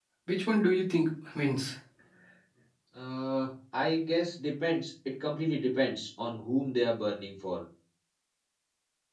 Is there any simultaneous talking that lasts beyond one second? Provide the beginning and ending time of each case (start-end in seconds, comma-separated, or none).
none